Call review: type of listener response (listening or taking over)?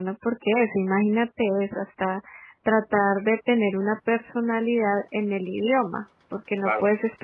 listening